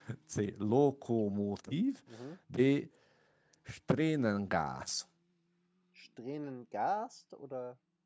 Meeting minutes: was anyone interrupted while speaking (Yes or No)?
No